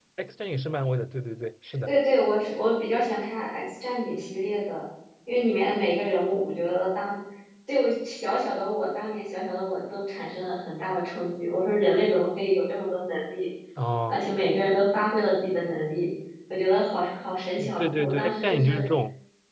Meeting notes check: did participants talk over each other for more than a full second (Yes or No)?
Yes